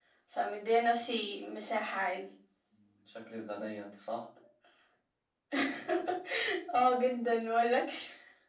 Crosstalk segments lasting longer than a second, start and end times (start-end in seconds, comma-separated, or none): none